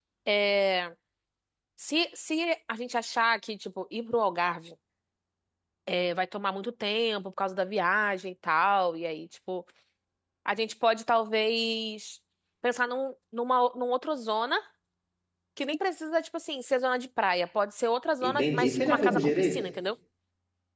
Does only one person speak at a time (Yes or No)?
No